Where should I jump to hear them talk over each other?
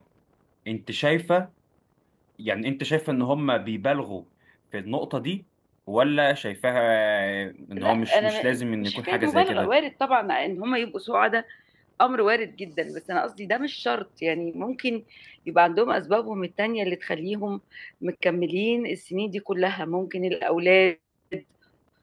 7.8 s

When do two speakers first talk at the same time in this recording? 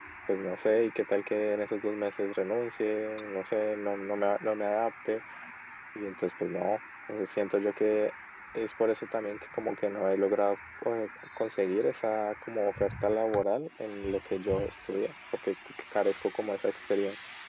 none

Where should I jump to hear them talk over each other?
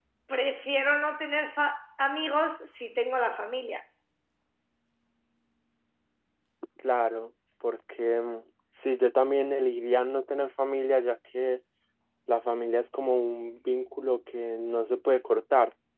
none

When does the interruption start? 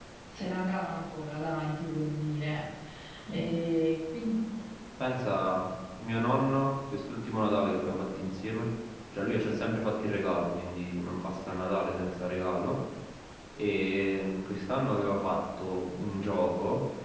none

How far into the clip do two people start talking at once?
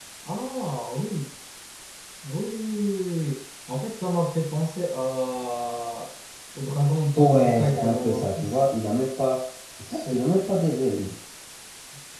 7.2 s

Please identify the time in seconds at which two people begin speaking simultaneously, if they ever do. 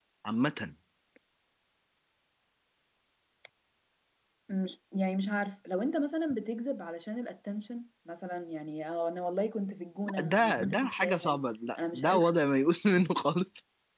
10.1 s

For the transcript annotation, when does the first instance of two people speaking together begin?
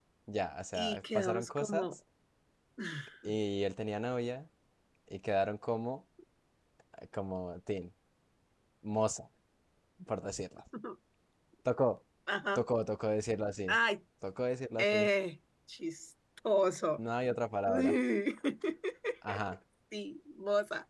0.7 s

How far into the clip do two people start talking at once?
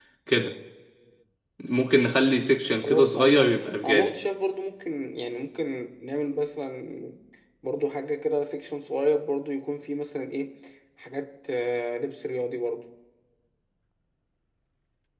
2.8 s

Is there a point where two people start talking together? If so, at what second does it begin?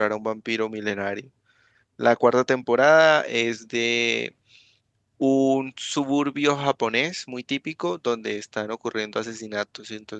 none

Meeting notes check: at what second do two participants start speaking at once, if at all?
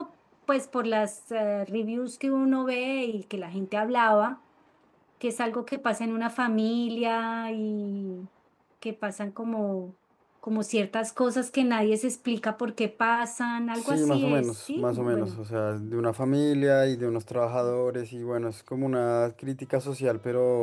13.8 s

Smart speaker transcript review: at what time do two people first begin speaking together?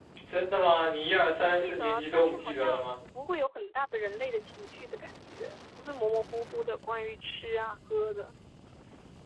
1.6 s

